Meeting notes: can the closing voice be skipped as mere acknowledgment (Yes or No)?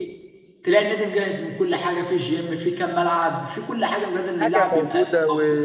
No